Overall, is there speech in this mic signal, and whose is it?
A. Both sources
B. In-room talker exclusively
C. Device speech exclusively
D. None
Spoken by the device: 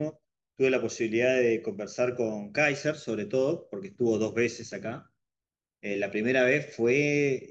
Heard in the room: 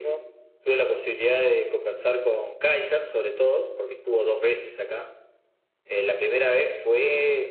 C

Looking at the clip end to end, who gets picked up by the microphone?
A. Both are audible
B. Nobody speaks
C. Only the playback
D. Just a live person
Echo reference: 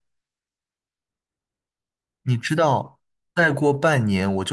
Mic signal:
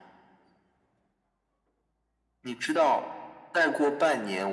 C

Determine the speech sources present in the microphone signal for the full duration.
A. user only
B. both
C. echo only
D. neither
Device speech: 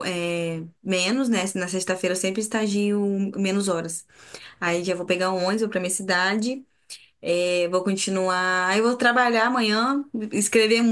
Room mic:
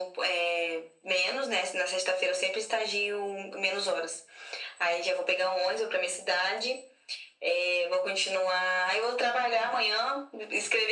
C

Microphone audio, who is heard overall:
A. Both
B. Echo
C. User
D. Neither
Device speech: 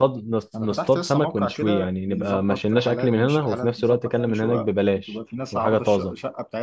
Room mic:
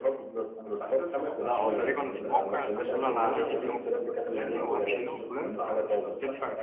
A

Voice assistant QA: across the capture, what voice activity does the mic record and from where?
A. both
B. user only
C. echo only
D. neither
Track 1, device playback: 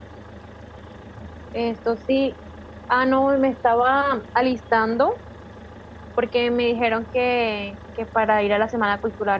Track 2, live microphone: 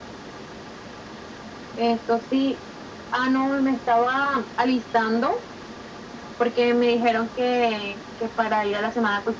C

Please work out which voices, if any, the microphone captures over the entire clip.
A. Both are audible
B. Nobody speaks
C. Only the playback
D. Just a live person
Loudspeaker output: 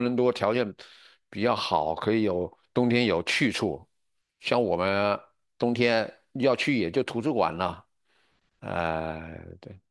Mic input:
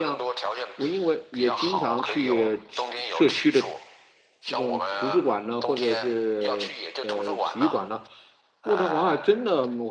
A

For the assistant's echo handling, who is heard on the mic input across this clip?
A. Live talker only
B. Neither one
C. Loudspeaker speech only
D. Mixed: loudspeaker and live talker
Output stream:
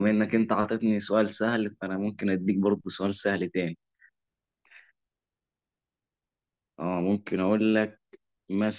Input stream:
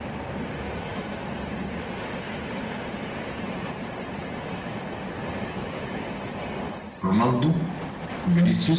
A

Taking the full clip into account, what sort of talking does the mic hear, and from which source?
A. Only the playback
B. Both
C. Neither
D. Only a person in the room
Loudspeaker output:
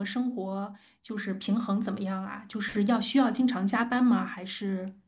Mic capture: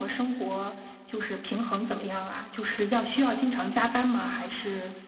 A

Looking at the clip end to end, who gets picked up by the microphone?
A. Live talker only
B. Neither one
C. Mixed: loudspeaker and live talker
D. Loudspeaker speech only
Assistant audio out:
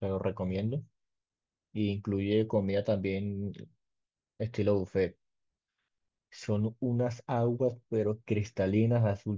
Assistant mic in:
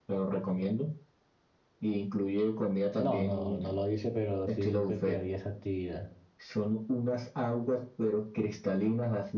C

